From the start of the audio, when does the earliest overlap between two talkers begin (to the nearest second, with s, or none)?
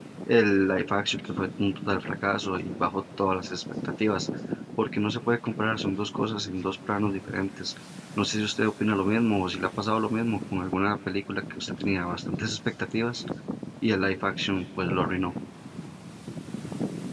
none